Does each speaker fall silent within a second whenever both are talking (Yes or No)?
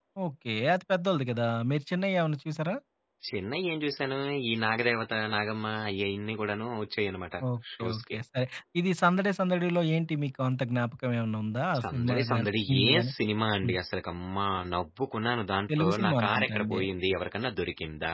No